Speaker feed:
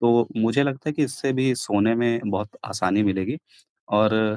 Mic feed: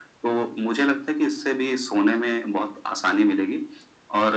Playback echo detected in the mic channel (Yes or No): Yes